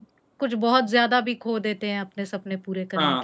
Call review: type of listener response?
taking over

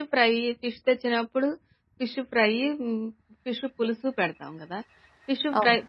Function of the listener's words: listening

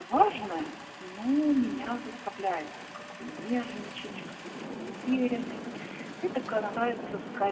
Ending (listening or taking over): listening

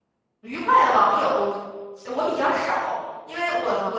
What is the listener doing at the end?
taking over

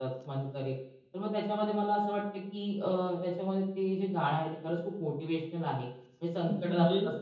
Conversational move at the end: listening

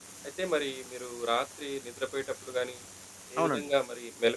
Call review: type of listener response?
listening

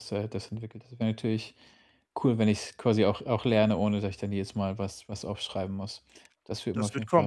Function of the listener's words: taking over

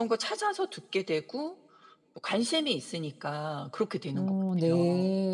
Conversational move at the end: taking over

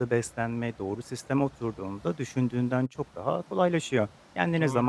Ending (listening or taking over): listening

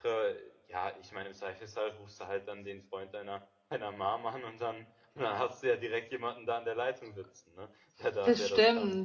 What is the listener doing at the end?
taking over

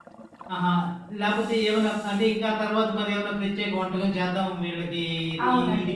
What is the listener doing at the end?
taking over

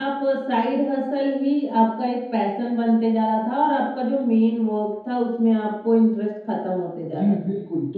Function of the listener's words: taking over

